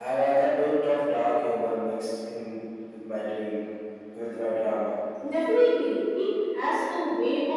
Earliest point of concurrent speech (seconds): none

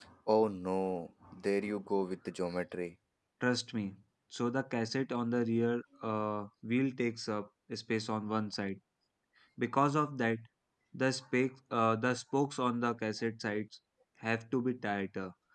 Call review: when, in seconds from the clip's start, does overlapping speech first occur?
none

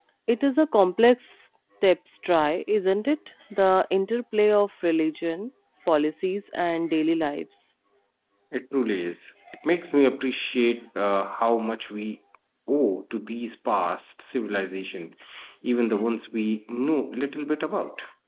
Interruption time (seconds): none

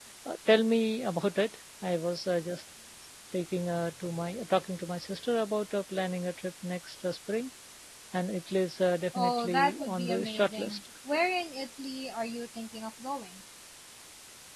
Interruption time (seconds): 9 s

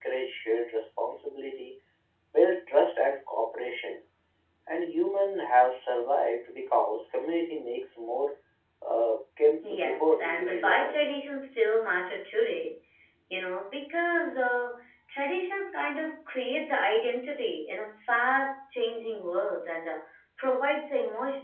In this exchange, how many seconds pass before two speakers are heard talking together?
10 s

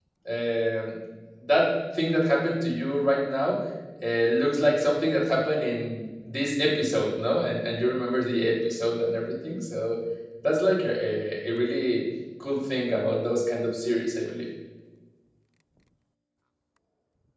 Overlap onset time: none

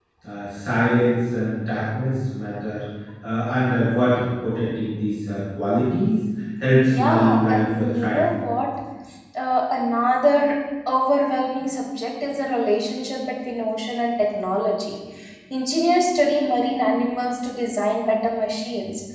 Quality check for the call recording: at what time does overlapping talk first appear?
7 s

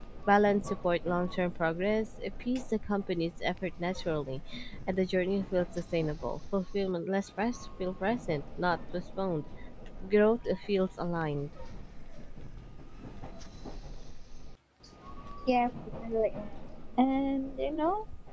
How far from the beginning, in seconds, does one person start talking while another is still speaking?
none

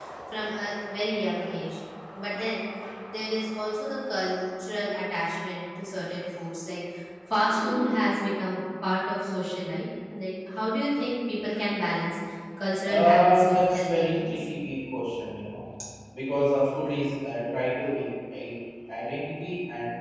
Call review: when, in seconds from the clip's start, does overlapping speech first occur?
13 s

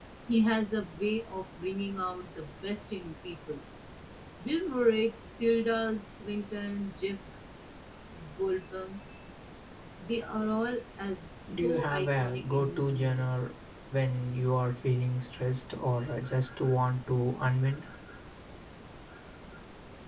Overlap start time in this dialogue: 11 s

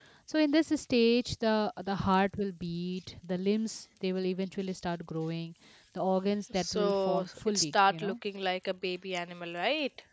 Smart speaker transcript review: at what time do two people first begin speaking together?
7 s

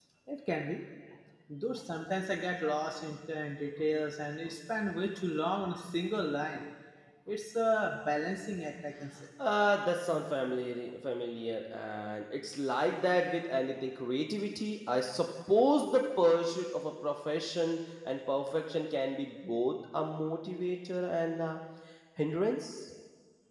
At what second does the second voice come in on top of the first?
none

